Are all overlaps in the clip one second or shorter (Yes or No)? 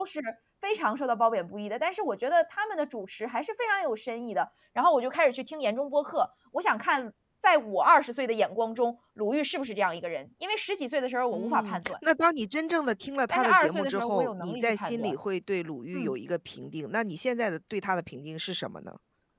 No